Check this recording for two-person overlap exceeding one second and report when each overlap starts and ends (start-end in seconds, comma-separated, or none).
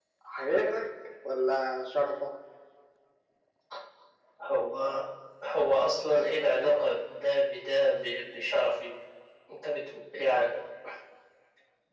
none